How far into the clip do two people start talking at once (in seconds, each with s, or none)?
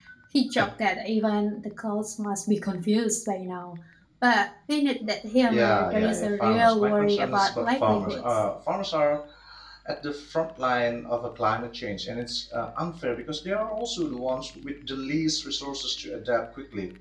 5.5 s